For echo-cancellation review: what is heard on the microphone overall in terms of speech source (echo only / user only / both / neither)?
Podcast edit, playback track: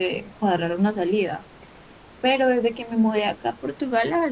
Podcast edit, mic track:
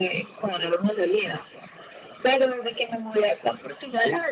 echo only